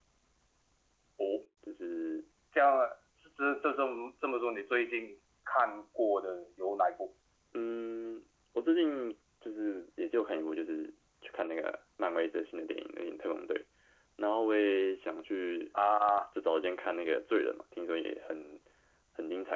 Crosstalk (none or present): none